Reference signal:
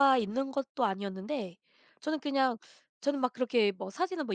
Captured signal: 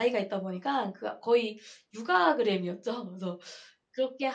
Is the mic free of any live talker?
No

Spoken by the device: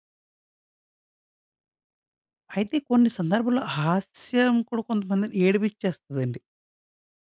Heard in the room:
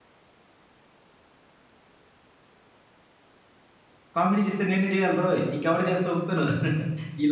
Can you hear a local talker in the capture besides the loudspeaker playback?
Yes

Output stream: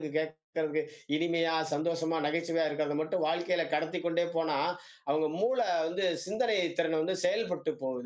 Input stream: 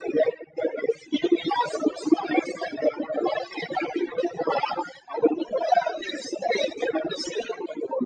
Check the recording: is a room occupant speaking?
No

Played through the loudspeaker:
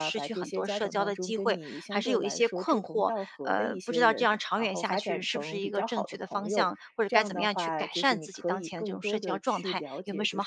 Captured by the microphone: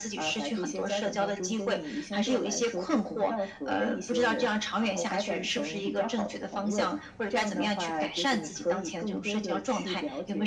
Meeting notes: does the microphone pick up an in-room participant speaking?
No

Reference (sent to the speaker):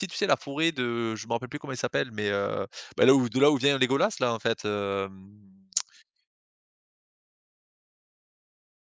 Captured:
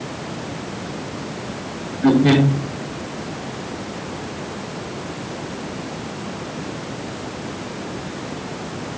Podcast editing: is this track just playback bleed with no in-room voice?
No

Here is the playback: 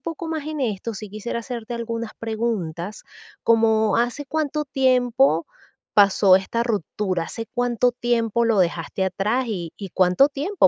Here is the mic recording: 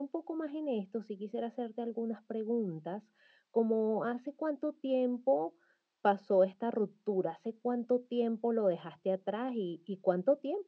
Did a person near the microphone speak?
No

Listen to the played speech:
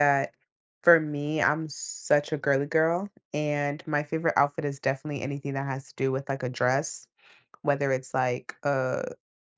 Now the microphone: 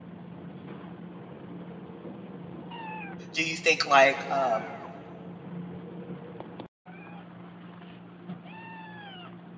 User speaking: Yes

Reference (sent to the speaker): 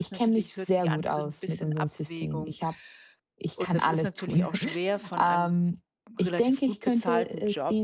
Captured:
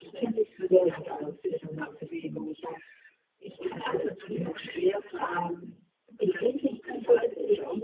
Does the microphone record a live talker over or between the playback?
No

